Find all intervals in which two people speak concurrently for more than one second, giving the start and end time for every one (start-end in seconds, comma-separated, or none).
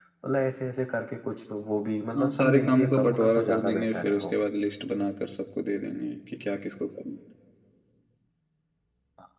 2.2-4.3